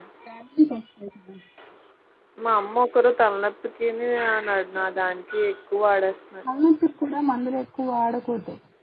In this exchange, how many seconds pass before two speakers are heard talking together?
none

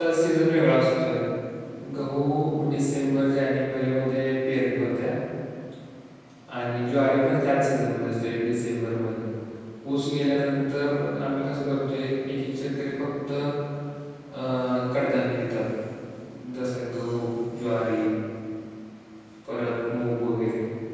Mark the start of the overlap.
none

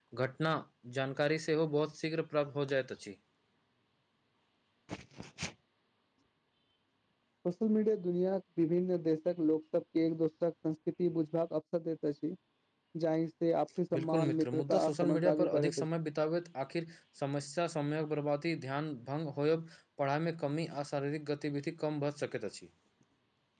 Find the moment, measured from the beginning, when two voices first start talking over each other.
14.0 s

